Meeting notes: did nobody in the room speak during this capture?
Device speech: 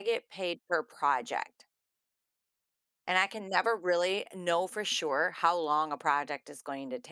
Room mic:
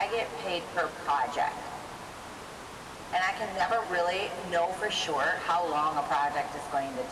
Yes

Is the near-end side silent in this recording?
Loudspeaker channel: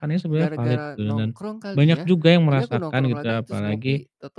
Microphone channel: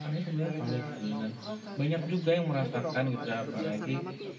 No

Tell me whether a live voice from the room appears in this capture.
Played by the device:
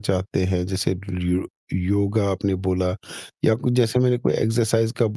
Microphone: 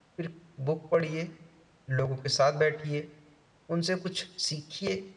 Yes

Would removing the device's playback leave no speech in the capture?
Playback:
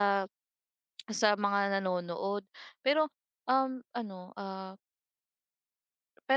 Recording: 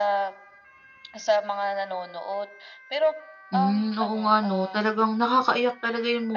No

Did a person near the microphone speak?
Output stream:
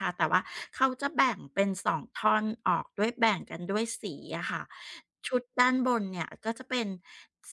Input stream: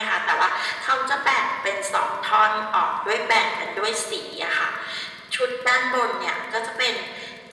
No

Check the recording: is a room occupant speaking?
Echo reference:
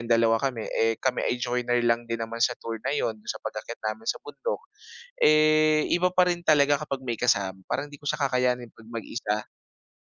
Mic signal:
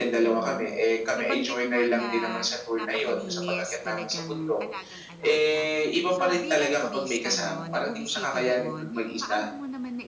Yes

